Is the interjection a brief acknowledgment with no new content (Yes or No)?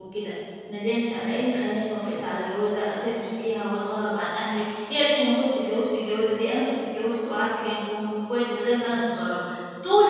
Yes